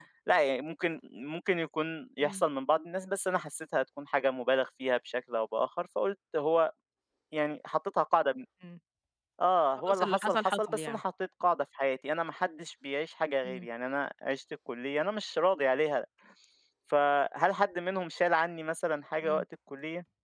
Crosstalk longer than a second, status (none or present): present